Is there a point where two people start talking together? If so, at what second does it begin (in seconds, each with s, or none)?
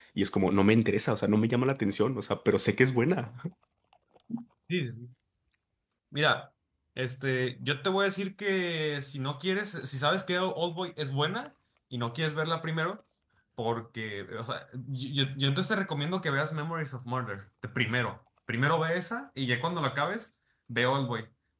none